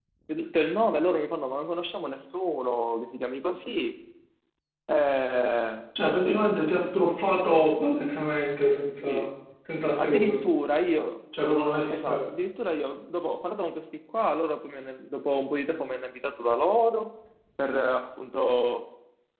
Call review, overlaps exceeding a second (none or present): none